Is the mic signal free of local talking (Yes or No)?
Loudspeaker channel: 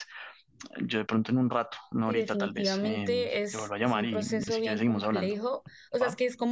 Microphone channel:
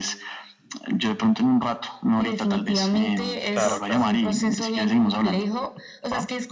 No